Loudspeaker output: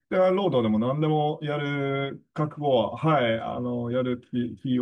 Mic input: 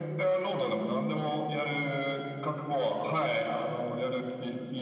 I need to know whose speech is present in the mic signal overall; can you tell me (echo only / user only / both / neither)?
echo only